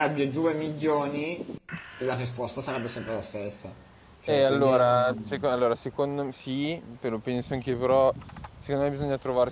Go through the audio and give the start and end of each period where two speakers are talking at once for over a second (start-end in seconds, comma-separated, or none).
4.3-5.5